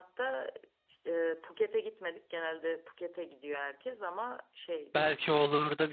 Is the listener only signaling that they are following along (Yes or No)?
No